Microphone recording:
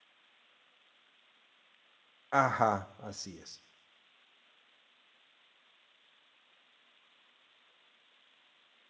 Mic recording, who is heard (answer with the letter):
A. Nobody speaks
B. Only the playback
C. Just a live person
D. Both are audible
C